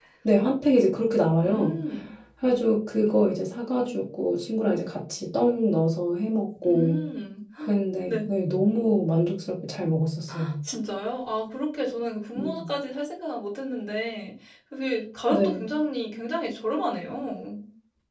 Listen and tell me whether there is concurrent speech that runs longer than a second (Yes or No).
No